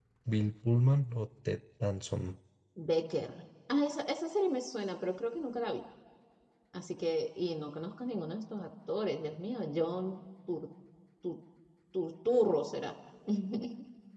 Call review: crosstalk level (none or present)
none